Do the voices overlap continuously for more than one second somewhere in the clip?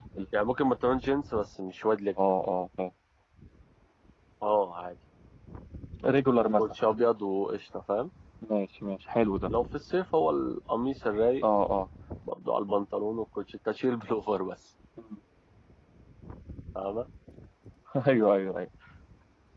No

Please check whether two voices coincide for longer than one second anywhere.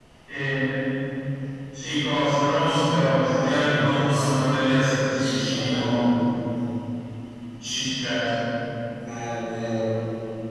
Yes, from 2.6 s

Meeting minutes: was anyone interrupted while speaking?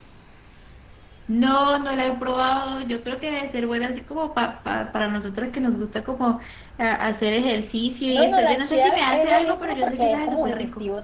Yes, from 8.1 s

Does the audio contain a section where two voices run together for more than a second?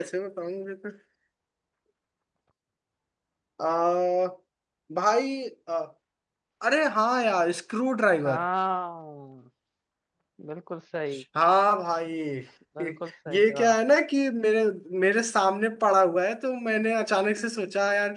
No

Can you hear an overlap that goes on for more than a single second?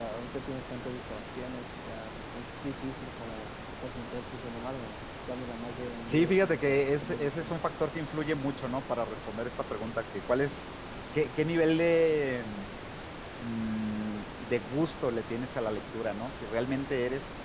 Yes, from 6.1 s

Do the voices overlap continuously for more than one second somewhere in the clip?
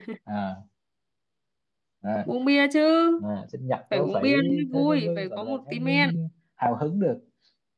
Yes, from 3.9 s

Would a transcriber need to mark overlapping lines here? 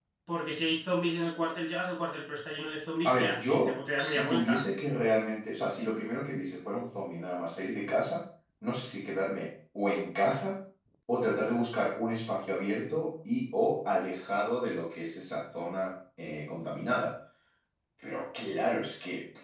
Yes, from 3.0 s

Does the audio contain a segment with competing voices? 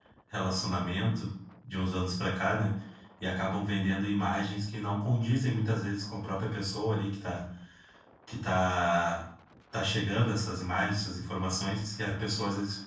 No

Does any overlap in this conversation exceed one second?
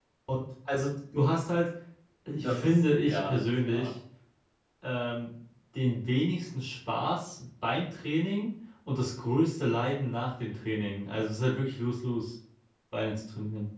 Yes, from 2.3 s

